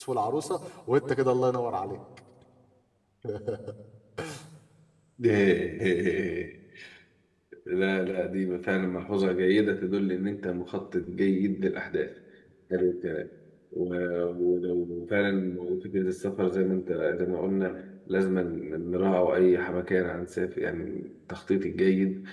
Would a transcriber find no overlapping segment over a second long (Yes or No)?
Yes